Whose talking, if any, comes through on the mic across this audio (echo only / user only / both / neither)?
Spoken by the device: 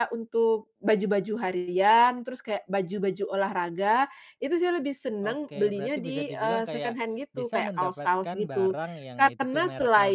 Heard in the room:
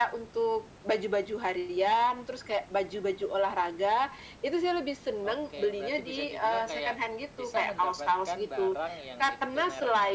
echo only